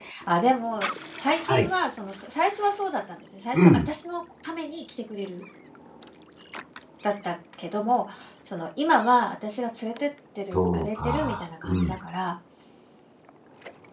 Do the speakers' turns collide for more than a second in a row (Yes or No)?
Yes